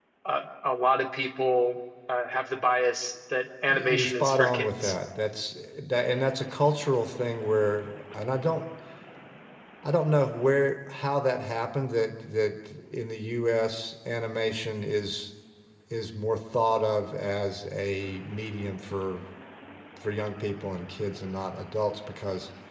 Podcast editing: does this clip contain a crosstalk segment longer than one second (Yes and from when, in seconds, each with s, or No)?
Yes, from 3.7 s